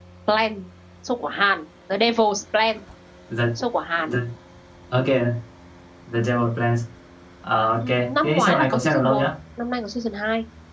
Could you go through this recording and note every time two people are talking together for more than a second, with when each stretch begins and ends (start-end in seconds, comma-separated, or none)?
7.8-9.2